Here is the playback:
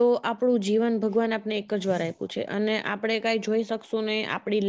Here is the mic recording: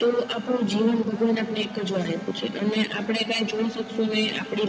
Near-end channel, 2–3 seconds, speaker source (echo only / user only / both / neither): echo only